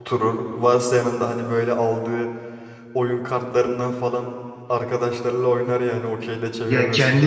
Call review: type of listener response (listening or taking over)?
taking over